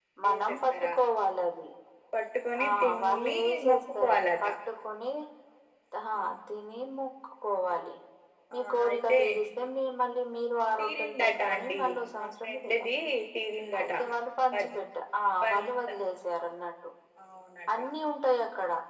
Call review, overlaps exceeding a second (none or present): present